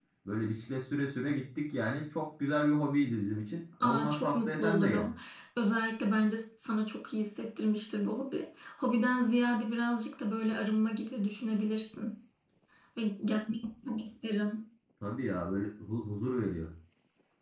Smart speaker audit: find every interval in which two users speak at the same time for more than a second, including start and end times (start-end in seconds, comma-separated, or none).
3.8-5.1